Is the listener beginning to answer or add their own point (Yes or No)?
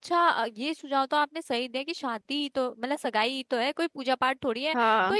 No